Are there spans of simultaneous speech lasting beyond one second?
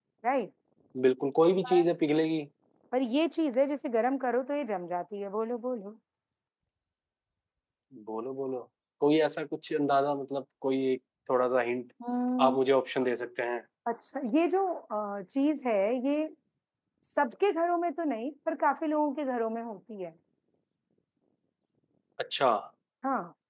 No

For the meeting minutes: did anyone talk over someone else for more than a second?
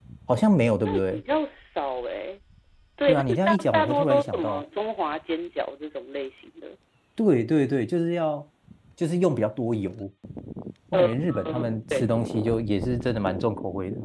Yes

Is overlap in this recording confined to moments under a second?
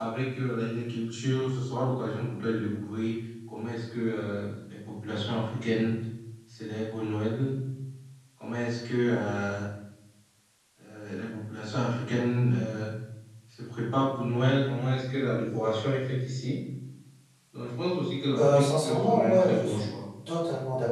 No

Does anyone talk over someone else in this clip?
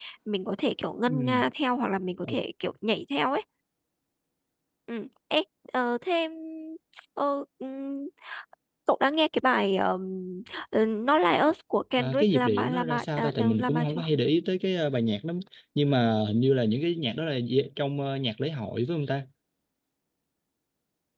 Yes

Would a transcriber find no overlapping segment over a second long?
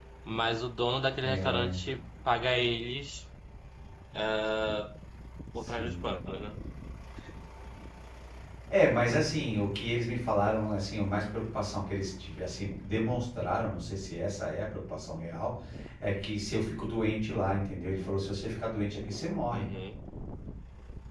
Yes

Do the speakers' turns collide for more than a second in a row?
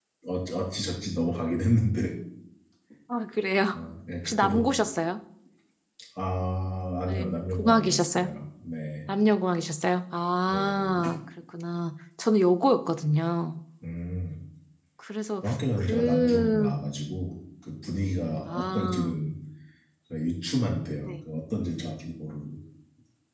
Yes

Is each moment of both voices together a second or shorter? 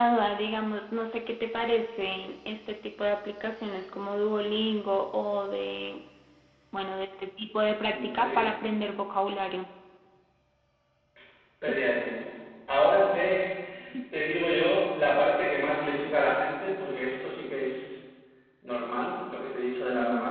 Yes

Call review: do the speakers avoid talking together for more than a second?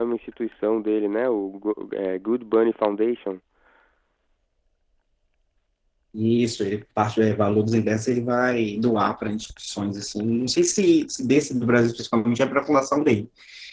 Yes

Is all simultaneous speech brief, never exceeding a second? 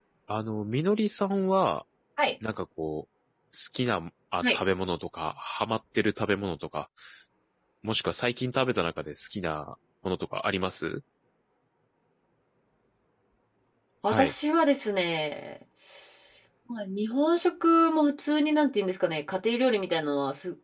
Yes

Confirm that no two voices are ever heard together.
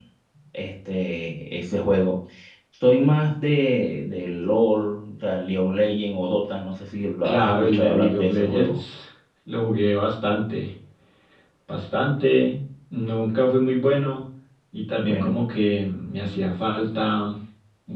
No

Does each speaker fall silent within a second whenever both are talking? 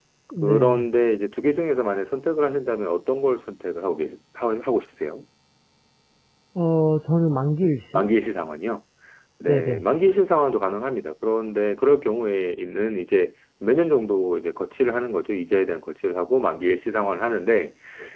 Yes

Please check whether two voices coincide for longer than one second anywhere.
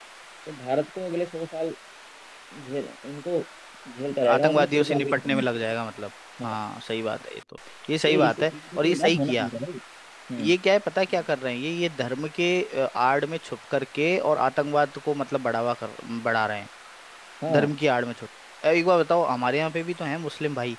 Yes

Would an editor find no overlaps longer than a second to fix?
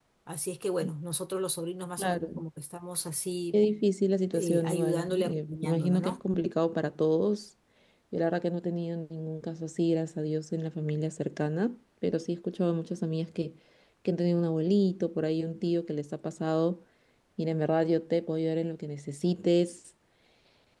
No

